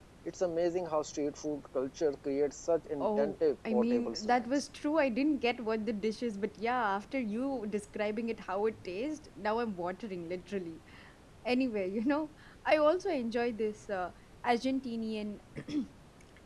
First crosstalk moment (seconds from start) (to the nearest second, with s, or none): 3 s